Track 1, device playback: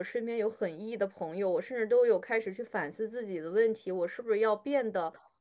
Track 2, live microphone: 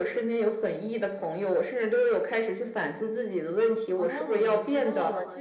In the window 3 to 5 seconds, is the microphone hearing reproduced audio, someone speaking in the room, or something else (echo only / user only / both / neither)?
both